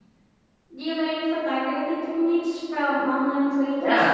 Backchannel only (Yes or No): No